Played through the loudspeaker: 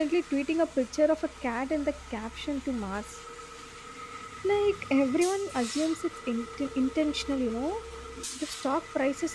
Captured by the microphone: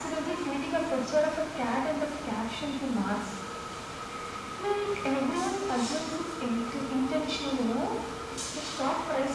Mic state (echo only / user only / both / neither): echo only